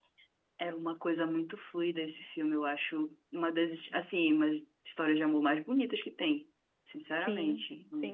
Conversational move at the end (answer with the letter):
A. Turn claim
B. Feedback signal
A